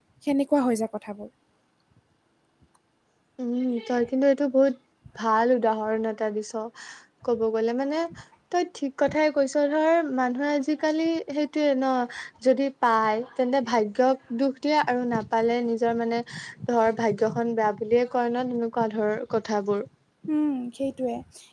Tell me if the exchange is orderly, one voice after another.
Yes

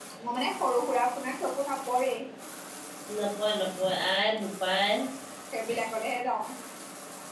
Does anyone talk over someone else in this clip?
No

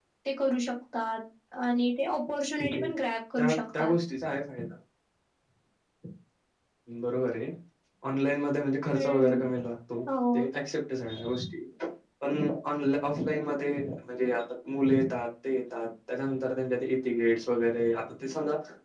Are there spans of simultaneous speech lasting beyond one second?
No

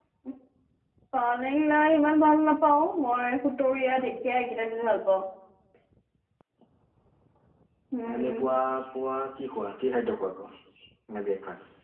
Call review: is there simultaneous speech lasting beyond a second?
No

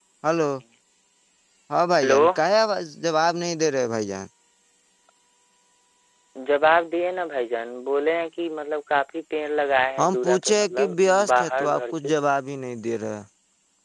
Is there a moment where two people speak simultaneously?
Yes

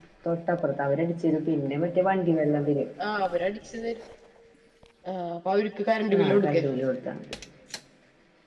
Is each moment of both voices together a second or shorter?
Yes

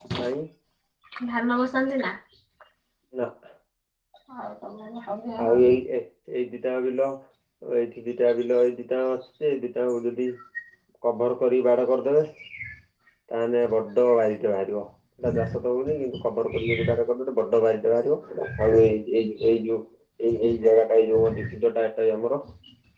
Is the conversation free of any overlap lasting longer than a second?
Yes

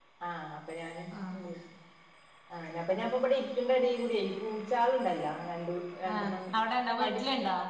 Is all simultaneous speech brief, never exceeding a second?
Yes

